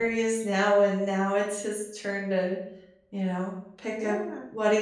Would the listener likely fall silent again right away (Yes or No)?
No